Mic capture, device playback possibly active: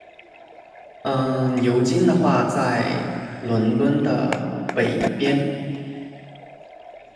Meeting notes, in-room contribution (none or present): present